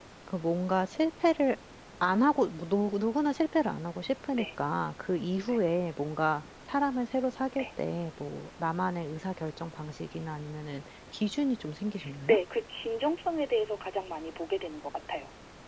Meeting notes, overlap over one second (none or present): none